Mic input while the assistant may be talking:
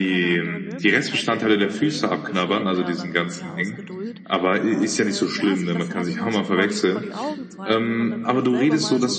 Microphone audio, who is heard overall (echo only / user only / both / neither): both